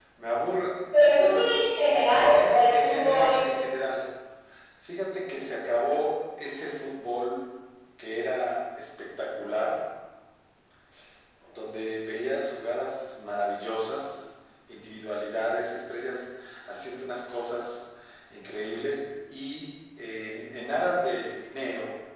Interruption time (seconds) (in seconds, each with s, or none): 2.0 s